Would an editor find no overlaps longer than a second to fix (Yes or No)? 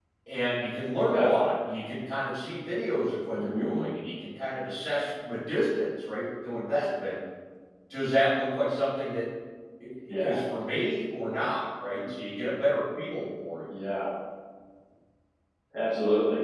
Yes